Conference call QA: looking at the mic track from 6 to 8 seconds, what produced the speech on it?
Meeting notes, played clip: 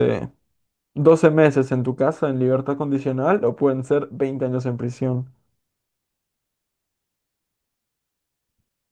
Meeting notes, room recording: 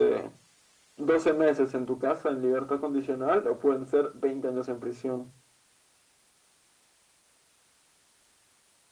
neither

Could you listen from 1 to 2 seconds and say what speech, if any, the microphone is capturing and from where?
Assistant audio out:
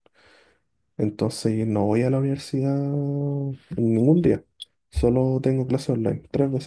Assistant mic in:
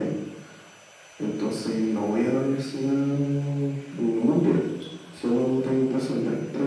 echo only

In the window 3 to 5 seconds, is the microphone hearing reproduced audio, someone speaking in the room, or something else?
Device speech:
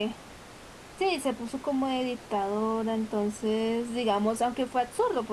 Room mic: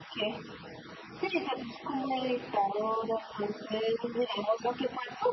echo only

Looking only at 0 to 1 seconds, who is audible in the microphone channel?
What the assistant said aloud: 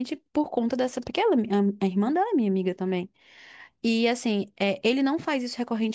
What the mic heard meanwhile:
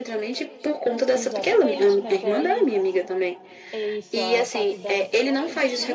echo only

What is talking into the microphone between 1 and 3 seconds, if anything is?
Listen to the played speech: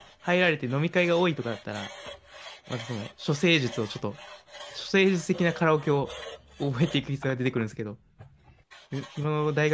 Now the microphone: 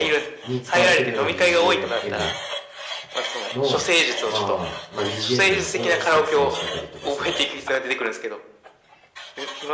both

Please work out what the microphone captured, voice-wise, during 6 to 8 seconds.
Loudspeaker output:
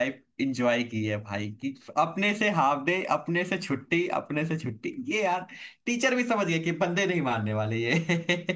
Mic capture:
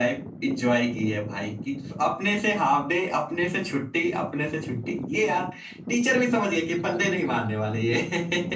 echo only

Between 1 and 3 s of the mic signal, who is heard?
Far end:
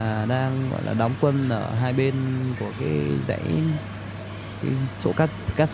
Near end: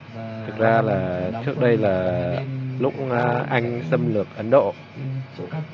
both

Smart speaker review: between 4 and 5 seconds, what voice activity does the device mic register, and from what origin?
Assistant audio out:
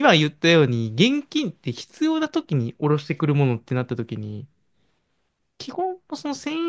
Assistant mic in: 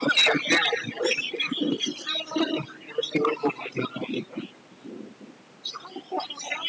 echo only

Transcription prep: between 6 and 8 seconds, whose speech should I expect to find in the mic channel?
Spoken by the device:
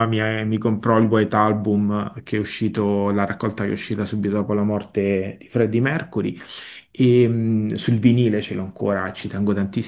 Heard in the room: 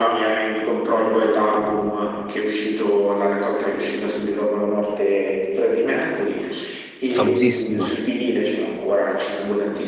both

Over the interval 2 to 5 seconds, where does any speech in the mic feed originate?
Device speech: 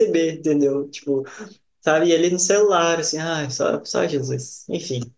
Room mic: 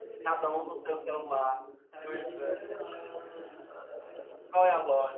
both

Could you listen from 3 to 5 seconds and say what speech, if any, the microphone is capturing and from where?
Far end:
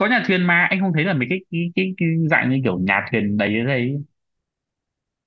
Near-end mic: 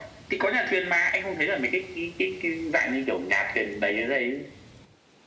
echo only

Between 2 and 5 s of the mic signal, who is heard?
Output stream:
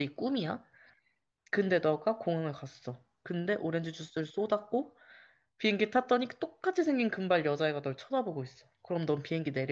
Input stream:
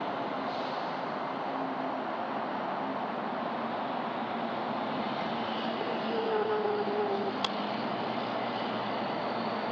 neither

